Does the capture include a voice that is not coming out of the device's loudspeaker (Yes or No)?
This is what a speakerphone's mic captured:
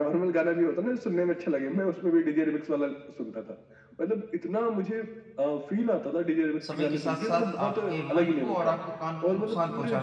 Yes